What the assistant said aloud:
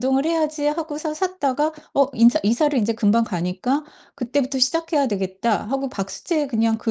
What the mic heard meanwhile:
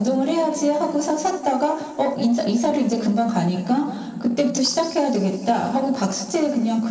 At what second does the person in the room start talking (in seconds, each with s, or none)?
none